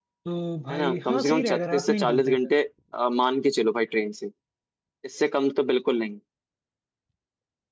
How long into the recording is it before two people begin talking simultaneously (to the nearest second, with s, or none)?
1 s